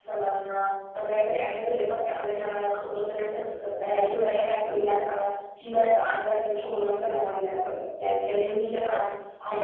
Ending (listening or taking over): taking over